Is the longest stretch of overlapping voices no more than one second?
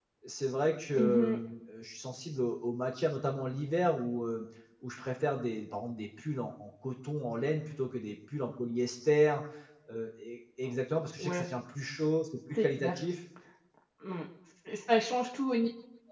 Yes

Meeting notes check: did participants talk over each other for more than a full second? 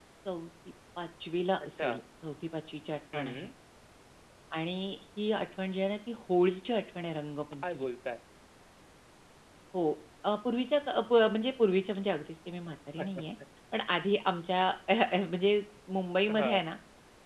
No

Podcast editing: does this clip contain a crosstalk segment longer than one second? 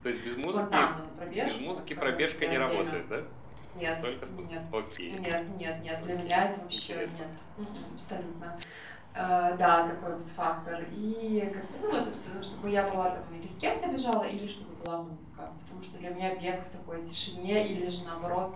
Yes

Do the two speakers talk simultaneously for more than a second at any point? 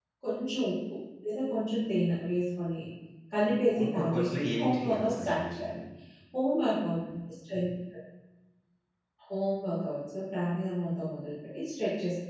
Yes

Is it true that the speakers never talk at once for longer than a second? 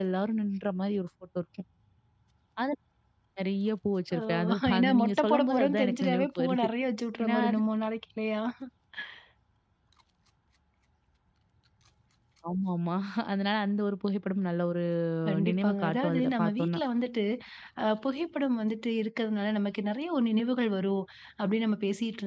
No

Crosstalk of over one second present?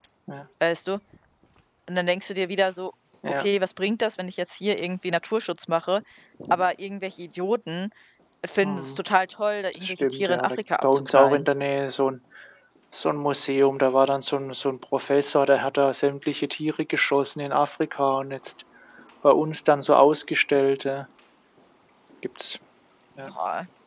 Yes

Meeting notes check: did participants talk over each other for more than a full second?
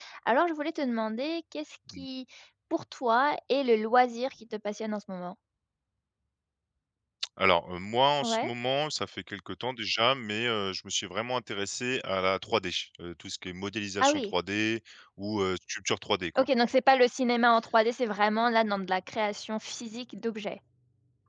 No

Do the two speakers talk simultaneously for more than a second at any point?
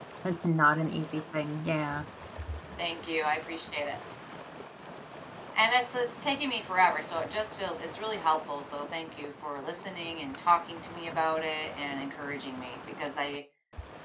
No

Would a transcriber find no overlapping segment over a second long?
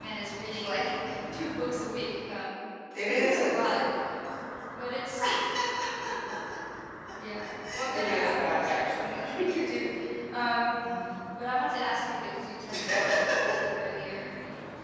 No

